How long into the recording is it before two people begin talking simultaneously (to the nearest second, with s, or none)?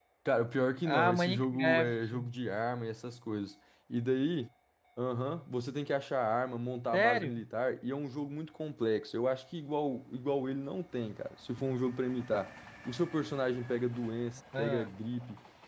1 s